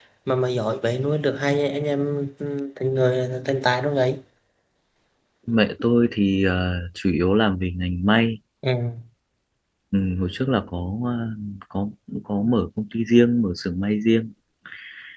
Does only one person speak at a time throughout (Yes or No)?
Yes